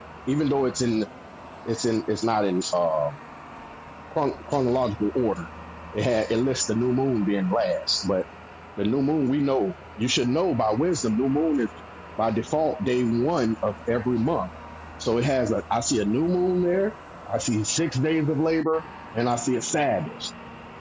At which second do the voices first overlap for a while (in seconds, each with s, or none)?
none